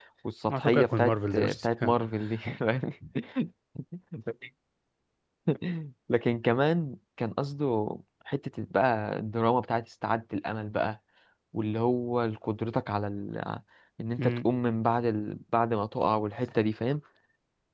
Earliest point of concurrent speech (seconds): 0.5 s

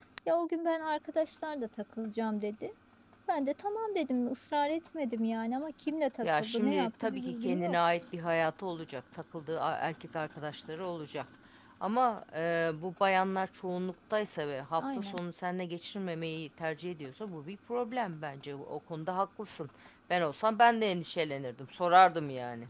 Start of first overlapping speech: 6.2 s

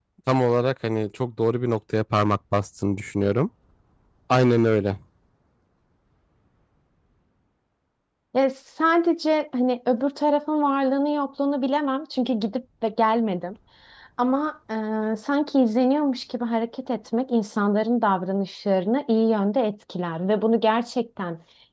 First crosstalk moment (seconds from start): none

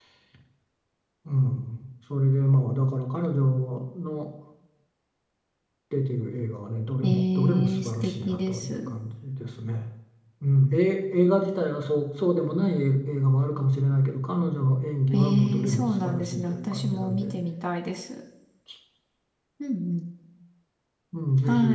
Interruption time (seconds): 7.0 s

